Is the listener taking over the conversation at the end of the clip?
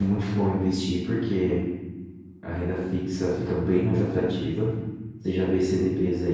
No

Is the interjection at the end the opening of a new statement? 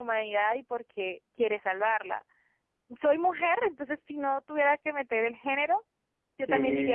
Yes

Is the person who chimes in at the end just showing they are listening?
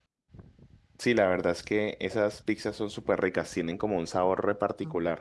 No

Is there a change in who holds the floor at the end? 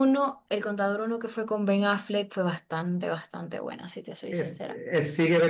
Yes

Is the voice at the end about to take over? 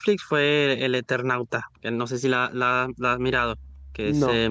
Yes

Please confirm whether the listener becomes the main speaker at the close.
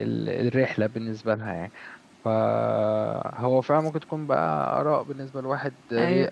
Yes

